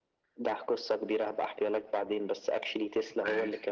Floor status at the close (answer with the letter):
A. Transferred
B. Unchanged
B